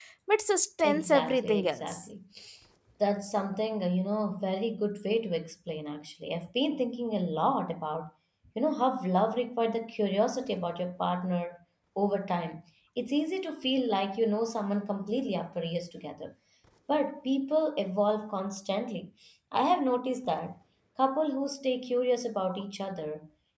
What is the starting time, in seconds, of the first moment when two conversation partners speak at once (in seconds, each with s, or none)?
0.8 s